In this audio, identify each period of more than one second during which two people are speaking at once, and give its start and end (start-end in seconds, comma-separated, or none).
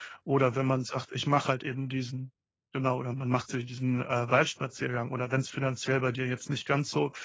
none